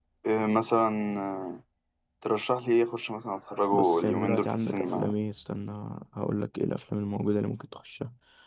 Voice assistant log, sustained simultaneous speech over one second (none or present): present